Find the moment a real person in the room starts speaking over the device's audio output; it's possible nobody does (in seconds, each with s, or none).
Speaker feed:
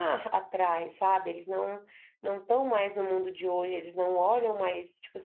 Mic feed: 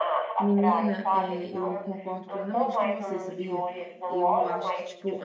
0.4 s